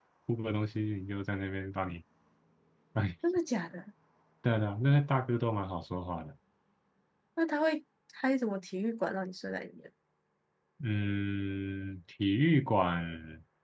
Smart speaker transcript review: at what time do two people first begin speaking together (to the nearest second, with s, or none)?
none